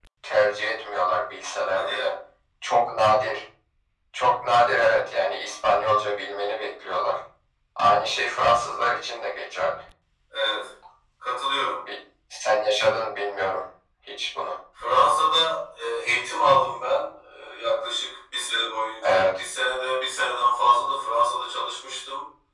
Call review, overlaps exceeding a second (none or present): none